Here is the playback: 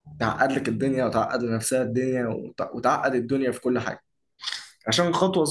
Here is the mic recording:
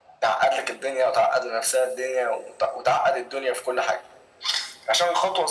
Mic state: echo only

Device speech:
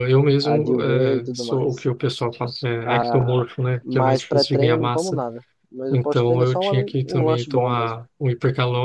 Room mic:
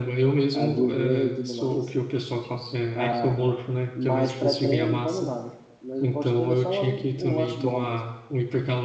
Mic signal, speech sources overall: echo only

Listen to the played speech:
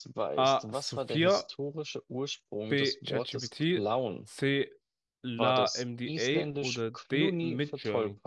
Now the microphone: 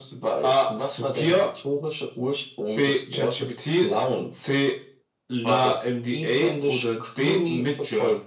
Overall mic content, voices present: echo only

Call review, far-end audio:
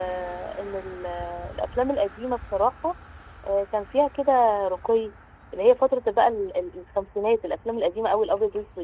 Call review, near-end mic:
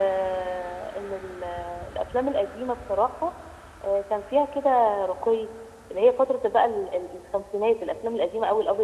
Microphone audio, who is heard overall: echo only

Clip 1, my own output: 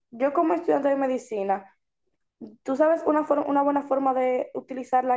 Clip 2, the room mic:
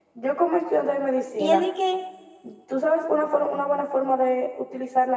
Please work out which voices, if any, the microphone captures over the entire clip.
both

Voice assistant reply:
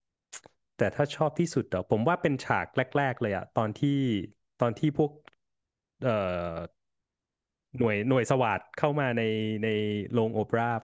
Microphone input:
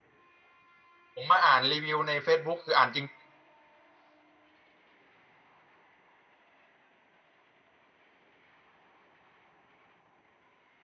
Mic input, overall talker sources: user only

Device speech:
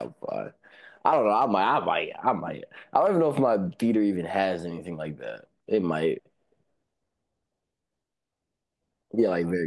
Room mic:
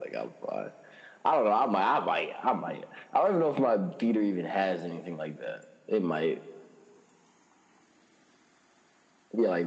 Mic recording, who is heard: echo only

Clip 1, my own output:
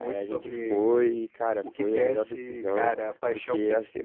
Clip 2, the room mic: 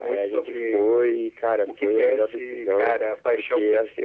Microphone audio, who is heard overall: echo only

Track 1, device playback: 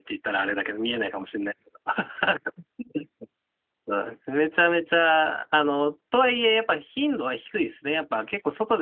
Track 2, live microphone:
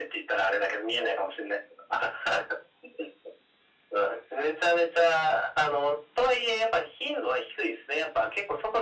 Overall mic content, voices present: echo only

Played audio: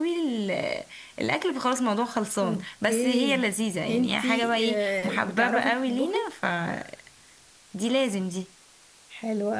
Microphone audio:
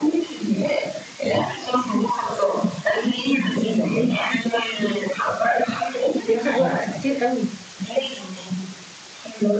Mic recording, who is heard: both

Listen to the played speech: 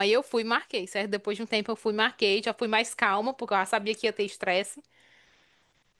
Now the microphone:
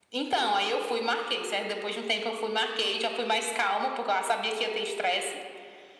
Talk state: echo only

